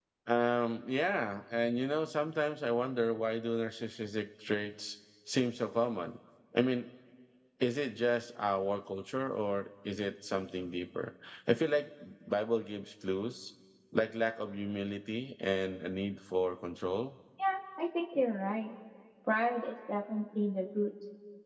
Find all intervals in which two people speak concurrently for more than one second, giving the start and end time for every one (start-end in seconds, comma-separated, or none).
none